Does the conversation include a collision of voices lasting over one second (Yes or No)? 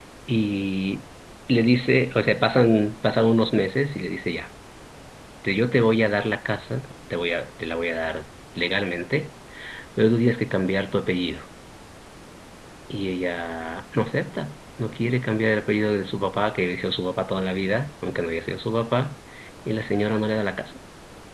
No